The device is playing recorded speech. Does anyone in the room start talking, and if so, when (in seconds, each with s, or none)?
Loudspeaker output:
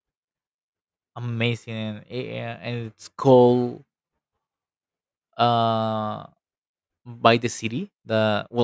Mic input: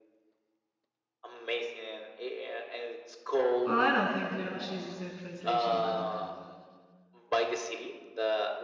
3.6 s